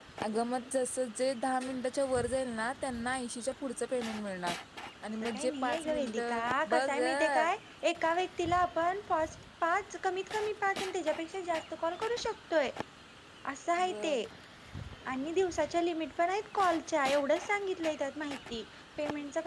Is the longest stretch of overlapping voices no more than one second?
No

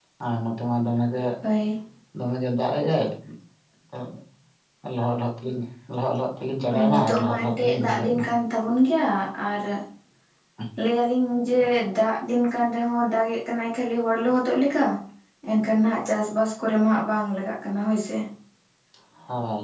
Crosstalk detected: Yes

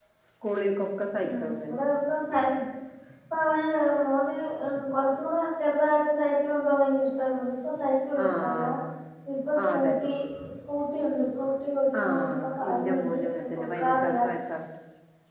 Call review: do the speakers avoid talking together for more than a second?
No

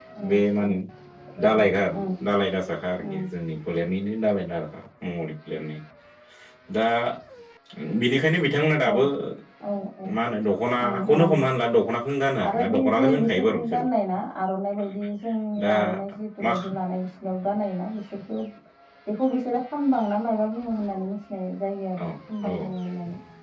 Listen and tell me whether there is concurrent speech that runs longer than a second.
Yes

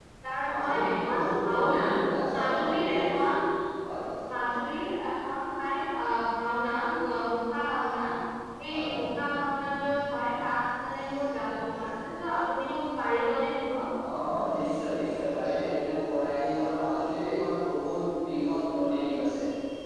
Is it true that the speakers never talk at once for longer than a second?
No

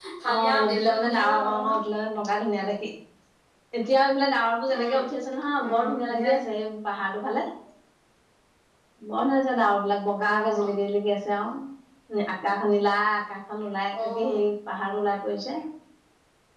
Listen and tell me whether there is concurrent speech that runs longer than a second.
Yes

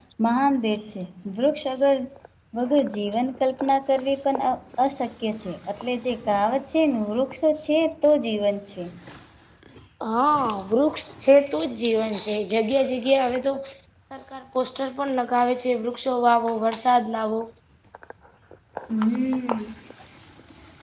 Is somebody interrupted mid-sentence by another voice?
No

